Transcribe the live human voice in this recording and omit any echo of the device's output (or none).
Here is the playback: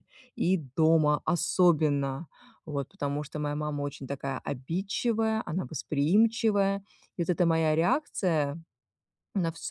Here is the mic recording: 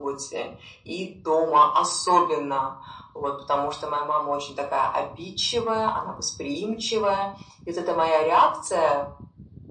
none